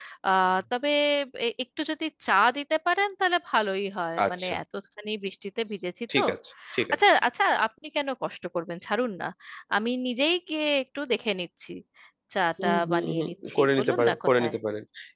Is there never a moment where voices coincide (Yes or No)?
No